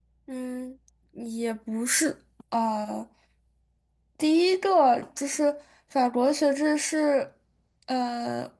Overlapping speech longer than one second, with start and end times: none

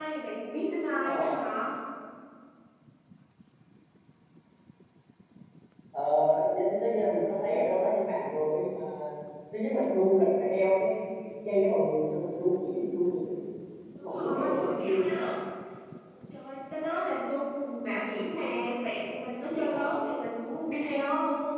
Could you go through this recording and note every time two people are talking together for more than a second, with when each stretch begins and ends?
14.0-15.2

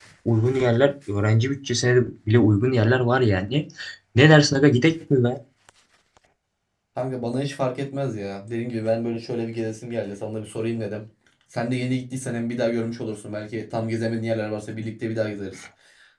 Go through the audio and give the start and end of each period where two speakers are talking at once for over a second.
none

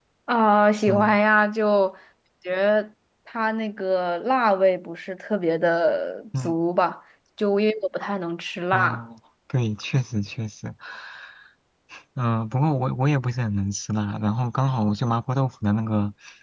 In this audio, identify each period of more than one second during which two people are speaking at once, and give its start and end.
none

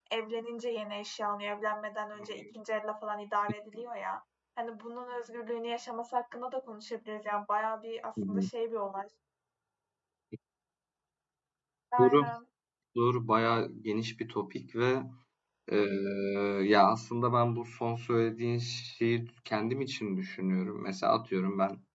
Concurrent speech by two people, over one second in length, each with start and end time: none

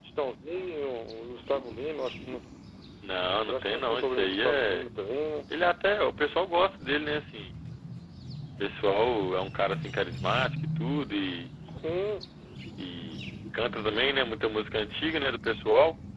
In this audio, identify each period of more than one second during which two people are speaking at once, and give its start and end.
3.5-4.9

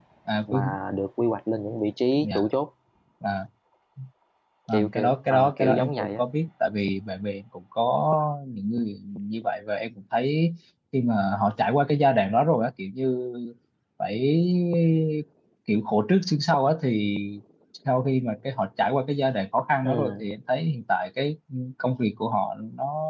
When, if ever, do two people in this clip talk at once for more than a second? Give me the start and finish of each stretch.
4.7-6.2

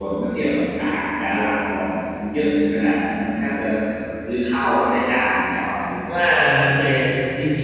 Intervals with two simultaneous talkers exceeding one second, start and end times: none

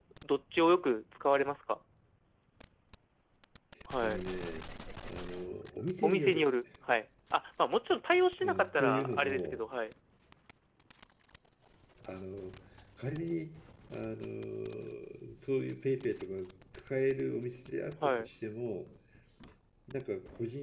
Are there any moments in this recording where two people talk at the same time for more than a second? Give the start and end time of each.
8.4-9.6

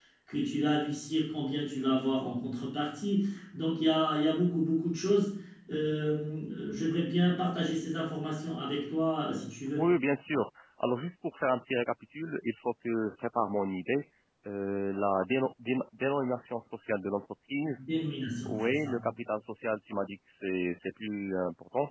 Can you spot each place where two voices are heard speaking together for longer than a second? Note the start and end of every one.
none

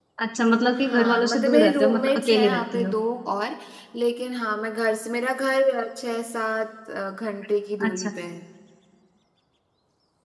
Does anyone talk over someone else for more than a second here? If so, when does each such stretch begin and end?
0.8-2.9

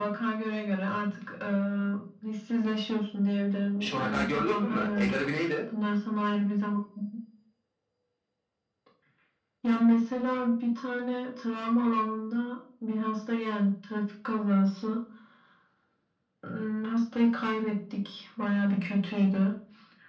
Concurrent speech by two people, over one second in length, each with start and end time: 3.8-5.2

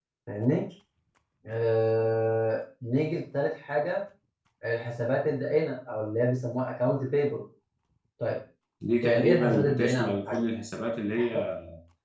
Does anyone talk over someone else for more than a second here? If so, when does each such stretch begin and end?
9.0-10.4

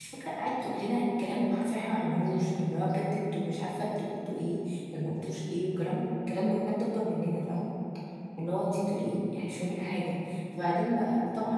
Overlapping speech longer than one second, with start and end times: none

